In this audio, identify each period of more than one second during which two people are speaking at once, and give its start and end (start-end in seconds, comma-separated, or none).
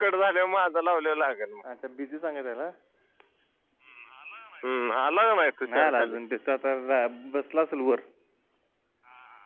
none